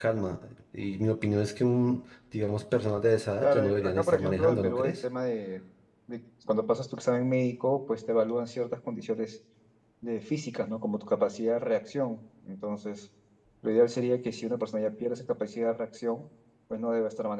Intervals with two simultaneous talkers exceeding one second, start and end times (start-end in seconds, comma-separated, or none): 3.4-5.0